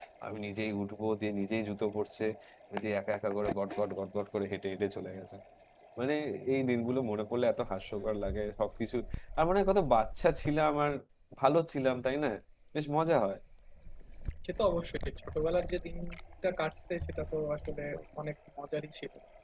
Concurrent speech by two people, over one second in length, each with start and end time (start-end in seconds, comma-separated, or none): none